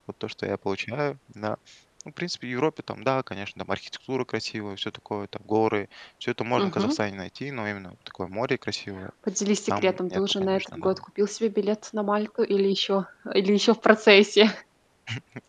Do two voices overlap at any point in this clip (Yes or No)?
Yes